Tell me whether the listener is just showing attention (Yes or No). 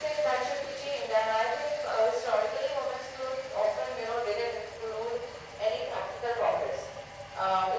Yes